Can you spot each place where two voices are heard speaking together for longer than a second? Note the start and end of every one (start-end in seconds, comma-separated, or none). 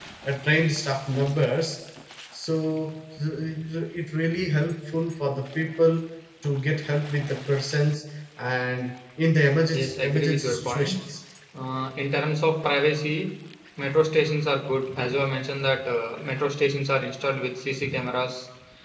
9.7-11.0